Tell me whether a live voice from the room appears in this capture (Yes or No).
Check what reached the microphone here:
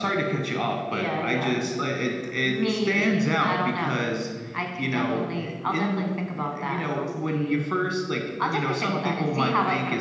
No